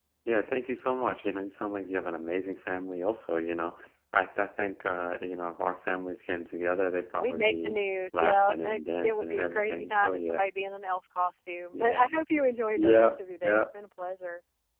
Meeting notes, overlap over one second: present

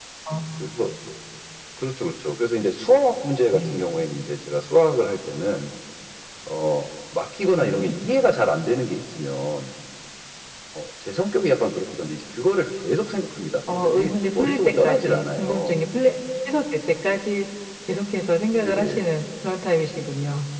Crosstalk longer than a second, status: present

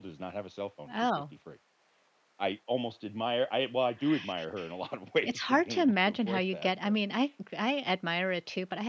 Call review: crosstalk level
present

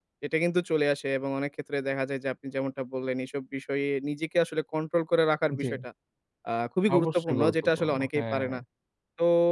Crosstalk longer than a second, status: present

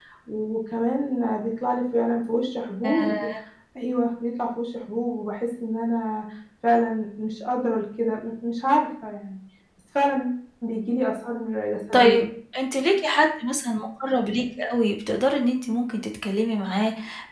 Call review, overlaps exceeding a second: none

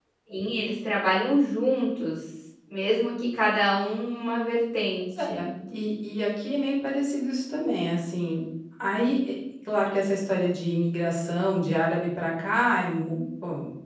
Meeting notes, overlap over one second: none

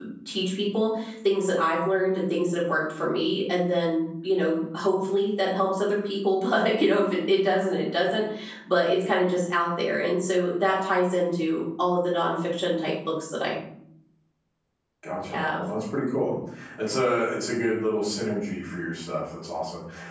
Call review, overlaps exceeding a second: none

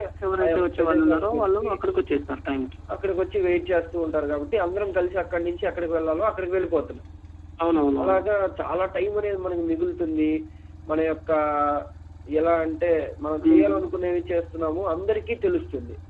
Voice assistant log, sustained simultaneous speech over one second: present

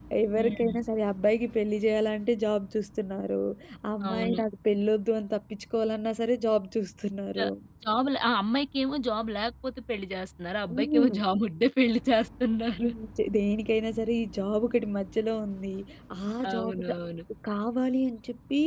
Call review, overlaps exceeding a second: none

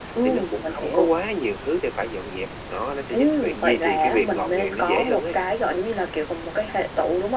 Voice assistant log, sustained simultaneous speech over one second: present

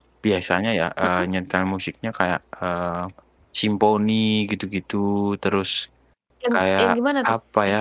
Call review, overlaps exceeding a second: none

